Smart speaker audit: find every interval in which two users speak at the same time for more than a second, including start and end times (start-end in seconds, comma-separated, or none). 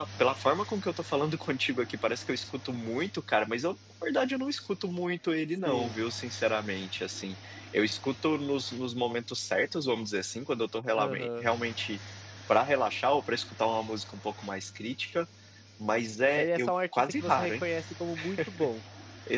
16.3-17.6